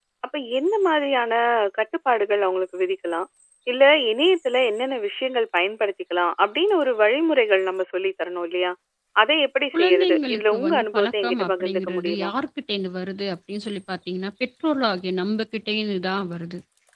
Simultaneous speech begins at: 9.7 s

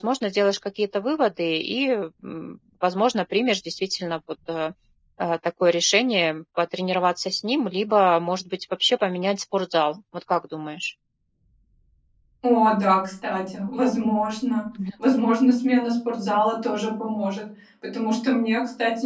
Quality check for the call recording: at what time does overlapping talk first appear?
none

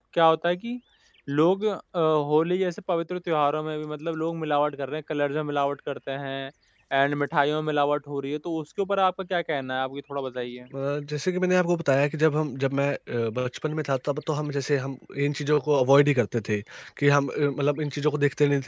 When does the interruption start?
none

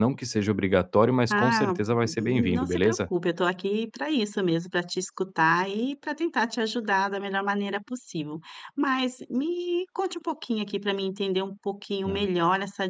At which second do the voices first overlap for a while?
1.3 s

